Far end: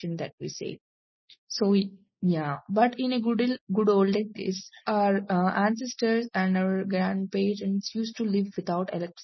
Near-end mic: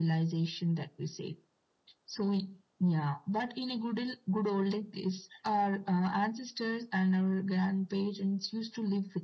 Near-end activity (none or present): none